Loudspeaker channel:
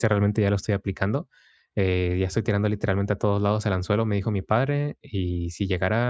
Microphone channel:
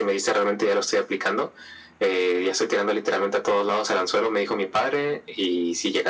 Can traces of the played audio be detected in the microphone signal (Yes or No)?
Yes